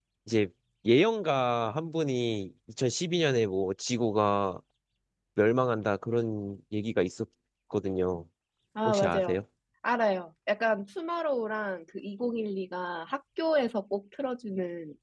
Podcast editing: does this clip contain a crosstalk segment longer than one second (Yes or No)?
No